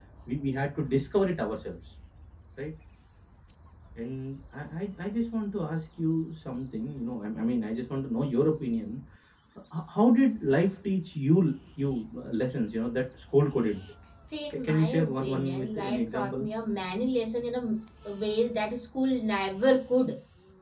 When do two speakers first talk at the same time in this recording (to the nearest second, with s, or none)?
15 s